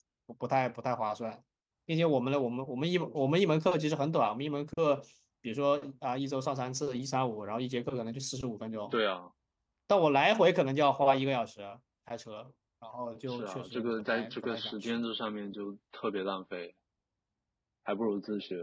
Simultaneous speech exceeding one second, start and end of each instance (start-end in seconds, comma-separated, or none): 13.3-14.8